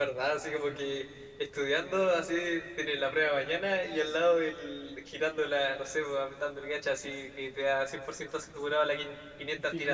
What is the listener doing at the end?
taking over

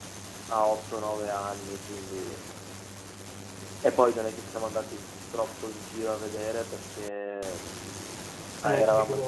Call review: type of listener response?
listening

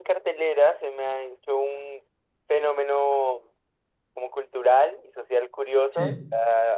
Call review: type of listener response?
listening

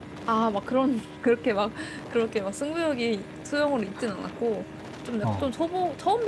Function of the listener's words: listening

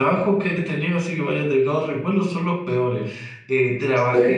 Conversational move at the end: listening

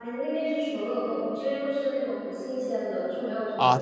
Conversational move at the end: taking over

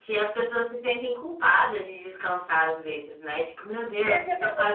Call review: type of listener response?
taking over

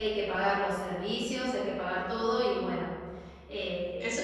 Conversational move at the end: taking over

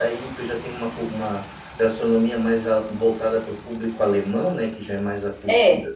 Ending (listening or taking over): listening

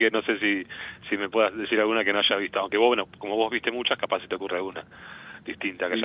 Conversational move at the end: taking over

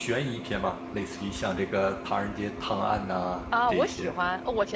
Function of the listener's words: taking over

